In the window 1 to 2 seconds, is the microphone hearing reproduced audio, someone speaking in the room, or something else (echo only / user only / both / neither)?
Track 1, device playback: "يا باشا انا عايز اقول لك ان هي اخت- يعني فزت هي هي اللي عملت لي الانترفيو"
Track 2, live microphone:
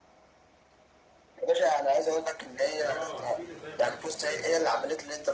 echo only